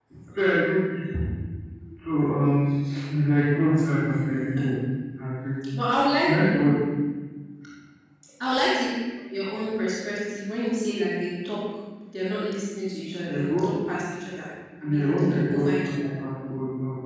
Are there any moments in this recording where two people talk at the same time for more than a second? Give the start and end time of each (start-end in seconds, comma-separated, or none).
14.8-16.1